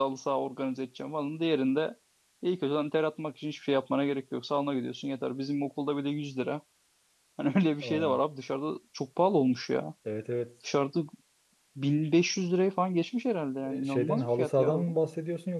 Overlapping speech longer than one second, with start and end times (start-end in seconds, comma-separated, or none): 13.7-14.9